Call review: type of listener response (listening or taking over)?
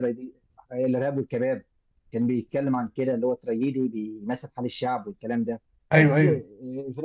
listening